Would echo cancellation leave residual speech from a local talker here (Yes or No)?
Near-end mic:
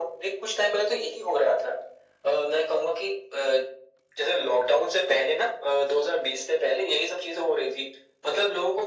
No